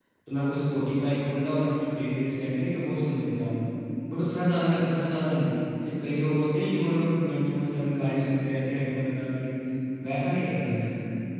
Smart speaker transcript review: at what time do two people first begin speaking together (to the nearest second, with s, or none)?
none